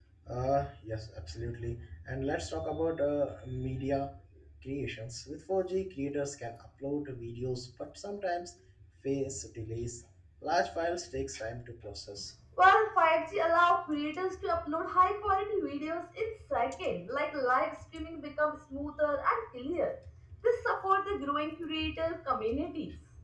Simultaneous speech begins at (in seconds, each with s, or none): none